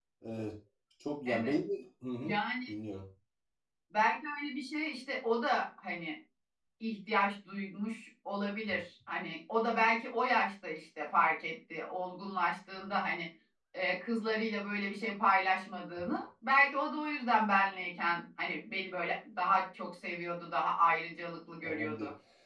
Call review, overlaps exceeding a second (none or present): none